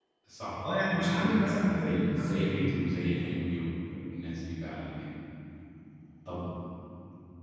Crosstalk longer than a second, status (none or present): present